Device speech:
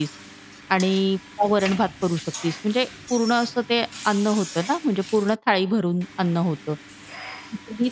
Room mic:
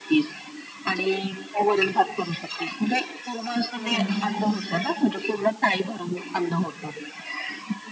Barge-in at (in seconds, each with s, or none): 3.7 s